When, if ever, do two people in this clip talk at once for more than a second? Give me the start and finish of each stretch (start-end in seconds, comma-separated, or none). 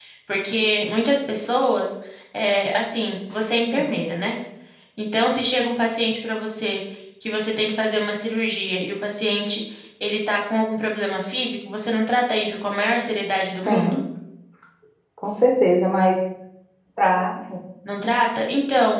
none